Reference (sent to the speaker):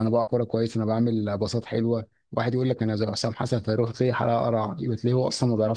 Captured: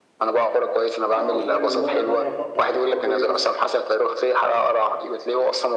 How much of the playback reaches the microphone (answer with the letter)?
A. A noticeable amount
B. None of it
A